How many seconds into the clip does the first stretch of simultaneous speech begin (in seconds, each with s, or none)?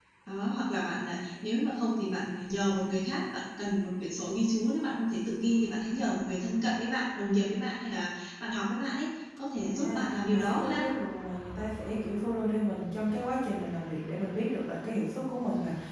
9.7 s